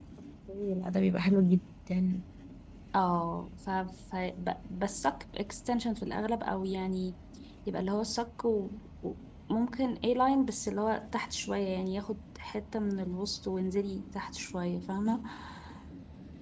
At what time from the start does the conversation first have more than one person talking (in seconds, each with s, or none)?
none